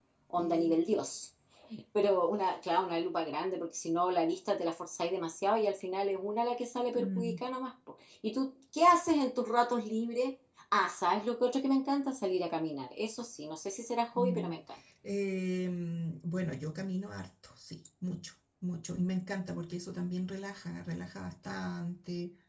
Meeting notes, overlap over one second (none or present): none